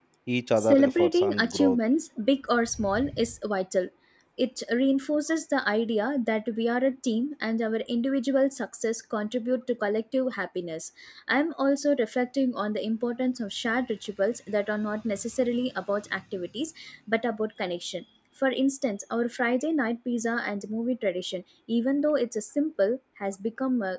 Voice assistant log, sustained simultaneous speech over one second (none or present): present